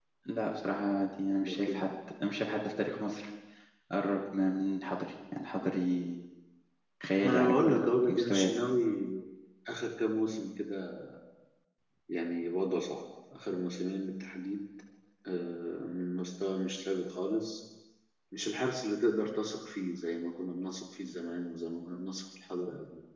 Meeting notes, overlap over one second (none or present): present